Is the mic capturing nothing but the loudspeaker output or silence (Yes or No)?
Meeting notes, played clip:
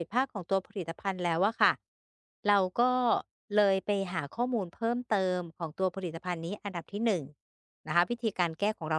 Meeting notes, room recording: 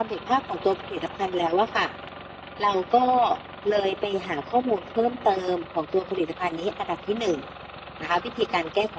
Yes